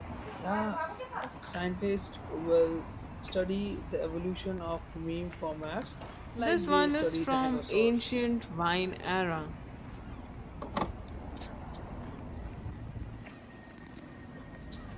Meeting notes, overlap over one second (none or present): present